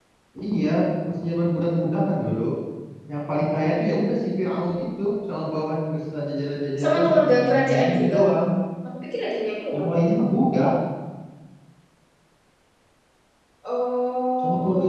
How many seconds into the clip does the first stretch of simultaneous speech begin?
6.8 s

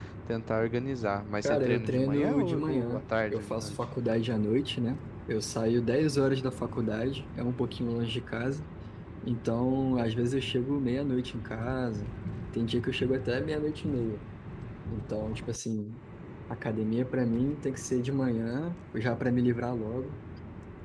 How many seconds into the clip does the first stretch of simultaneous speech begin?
1.4 s

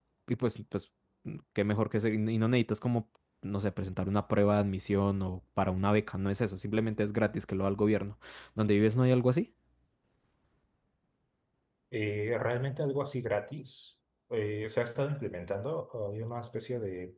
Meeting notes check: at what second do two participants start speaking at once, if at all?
none

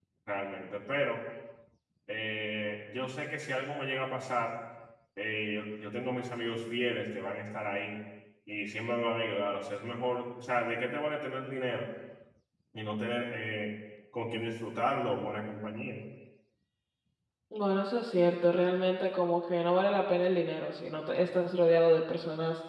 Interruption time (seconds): none

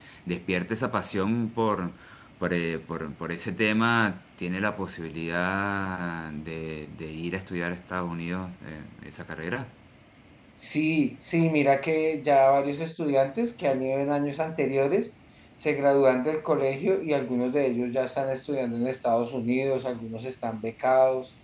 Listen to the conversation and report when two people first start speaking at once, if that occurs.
none

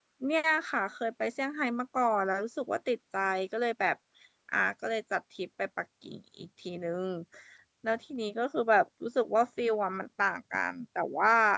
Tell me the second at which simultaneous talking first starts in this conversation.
none

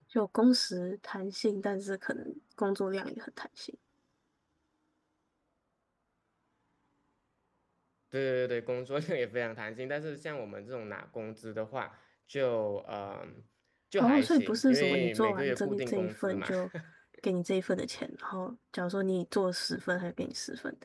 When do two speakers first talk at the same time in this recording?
14.0 s

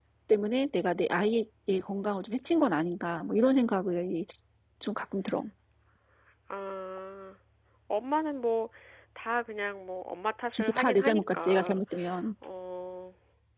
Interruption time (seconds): 10.5 s

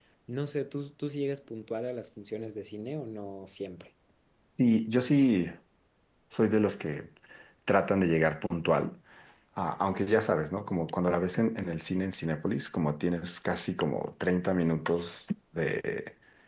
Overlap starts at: none

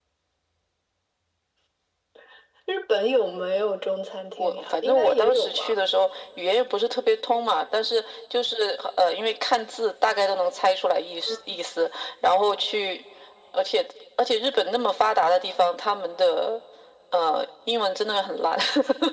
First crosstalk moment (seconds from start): 4.4 s

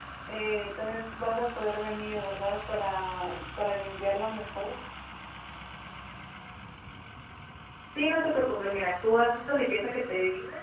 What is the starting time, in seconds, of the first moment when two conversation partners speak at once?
none

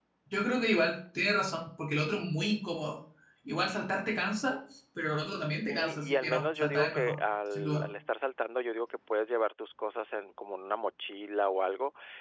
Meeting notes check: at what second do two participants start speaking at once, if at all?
5.7 s

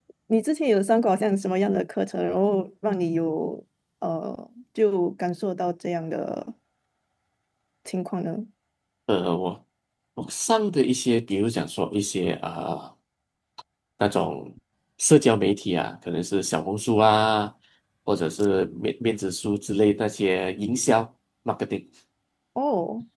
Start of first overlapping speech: none

